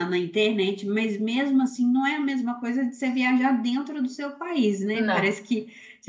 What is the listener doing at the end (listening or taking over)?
listening